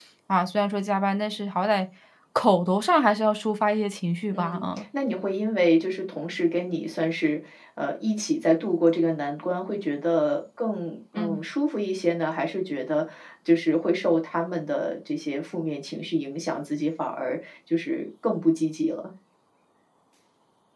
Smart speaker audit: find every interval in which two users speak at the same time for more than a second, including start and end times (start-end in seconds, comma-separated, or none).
none